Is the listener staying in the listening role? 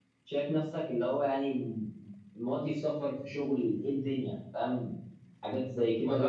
No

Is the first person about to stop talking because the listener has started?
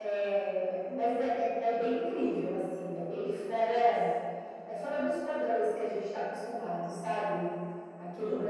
Yes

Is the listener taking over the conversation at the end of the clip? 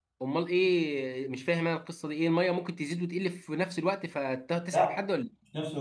Yes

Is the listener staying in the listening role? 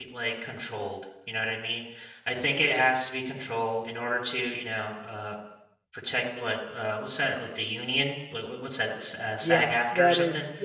No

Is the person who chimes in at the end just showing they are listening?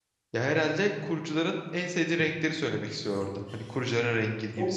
No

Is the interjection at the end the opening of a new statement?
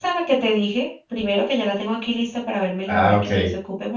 No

